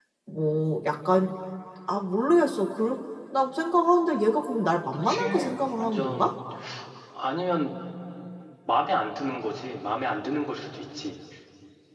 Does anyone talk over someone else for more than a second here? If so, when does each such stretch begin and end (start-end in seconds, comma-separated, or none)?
5.0-6.3